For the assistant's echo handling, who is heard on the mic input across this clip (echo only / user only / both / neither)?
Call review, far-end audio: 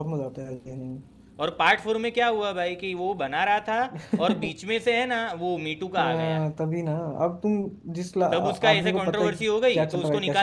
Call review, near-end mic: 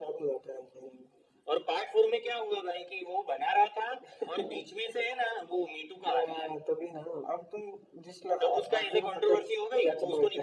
echo only